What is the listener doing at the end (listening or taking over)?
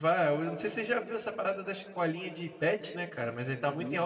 listening